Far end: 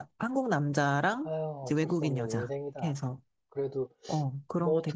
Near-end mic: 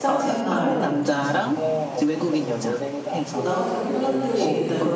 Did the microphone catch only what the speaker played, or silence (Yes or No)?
No